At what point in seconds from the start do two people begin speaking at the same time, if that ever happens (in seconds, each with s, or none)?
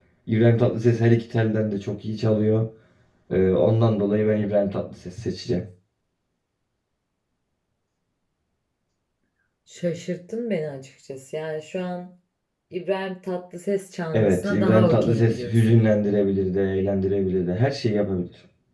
14.1 s